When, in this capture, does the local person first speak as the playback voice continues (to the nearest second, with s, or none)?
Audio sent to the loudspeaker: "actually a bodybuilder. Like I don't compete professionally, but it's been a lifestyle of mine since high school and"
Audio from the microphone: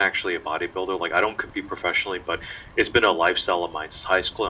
none